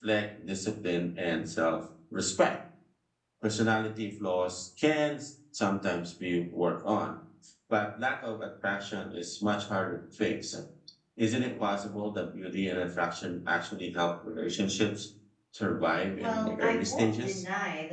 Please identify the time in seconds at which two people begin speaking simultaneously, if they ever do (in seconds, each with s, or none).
16.2 s